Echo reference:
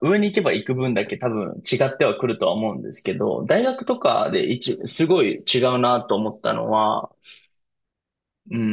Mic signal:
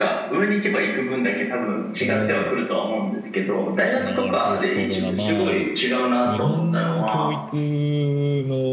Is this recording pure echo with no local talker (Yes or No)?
No